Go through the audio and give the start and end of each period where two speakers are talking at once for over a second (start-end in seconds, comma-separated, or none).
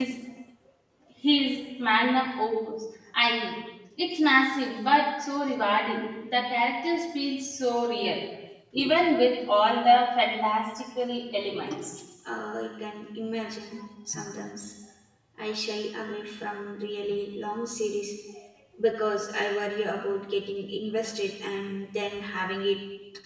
none